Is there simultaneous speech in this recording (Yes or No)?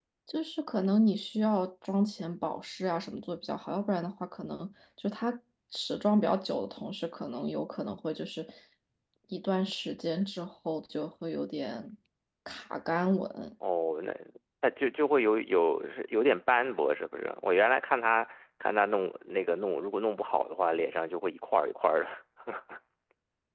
No